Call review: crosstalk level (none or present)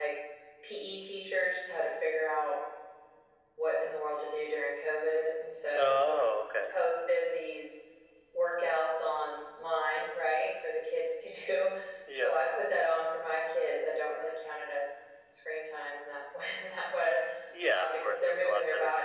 present